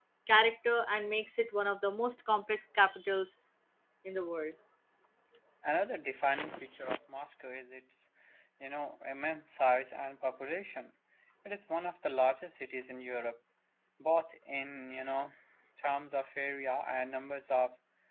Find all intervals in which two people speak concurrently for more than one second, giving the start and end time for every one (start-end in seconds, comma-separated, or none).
none